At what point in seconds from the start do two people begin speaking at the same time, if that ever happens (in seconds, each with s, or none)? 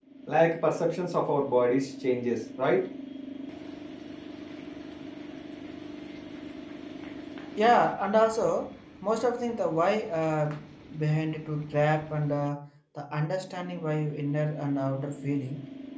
none